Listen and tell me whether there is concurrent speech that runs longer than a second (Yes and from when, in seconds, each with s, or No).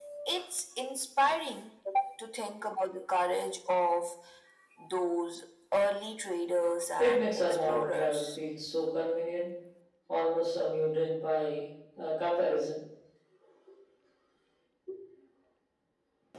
Yes, from 7.0 s